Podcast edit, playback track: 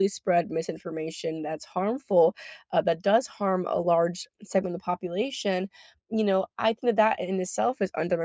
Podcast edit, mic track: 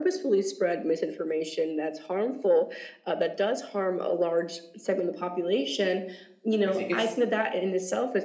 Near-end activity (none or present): present